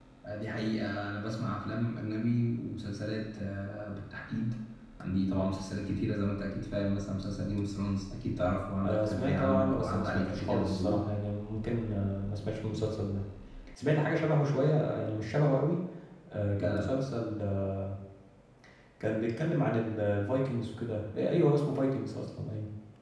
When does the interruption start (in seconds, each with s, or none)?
8.8 s